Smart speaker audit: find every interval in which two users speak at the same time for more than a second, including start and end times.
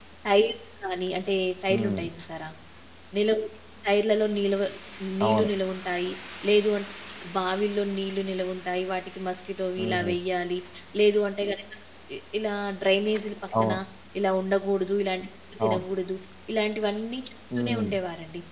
none

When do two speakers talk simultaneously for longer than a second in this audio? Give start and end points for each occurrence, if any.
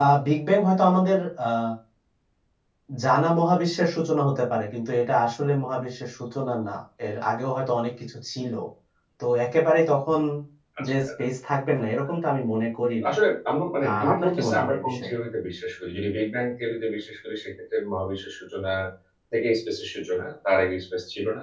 13.9-15.1

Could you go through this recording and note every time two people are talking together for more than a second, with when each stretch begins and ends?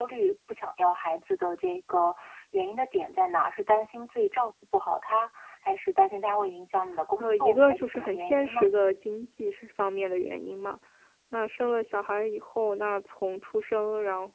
7.2-8.7

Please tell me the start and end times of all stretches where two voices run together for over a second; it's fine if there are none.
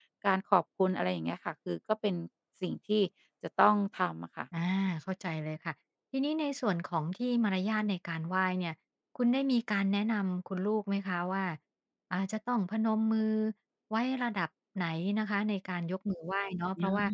none

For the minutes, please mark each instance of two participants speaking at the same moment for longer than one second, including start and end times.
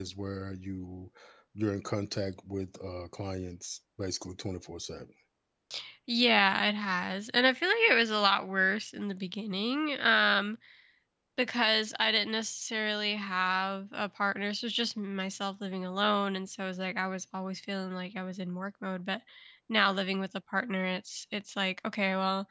none

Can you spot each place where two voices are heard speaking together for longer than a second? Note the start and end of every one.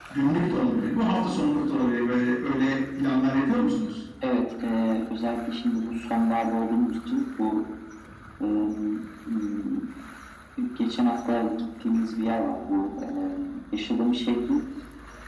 none

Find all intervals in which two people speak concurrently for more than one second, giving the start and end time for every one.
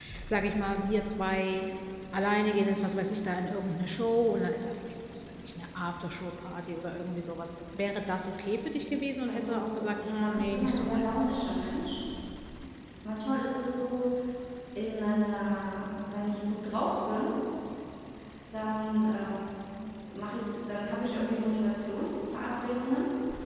9.3-11.2

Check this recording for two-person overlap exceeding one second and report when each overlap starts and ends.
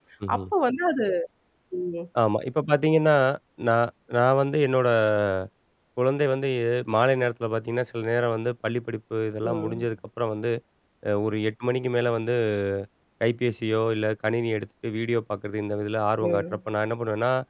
none

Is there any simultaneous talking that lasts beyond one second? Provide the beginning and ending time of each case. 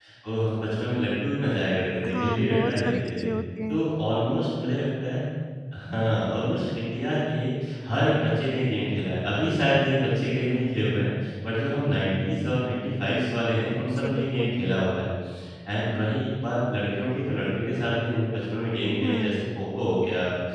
2.0-3.3

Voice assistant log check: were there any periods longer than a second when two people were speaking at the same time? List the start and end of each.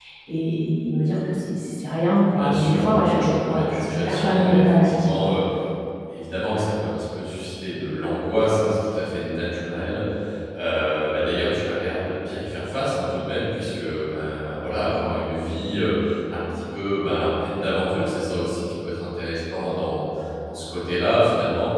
2.4-5.3

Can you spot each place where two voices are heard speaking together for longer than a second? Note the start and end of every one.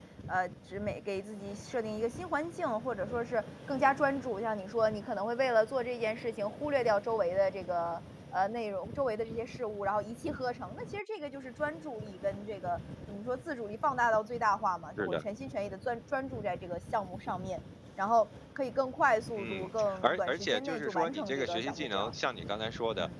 19.4-22.1

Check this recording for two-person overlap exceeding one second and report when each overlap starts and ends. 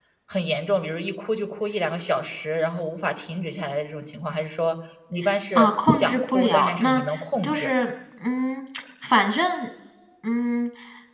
5.6-7.0

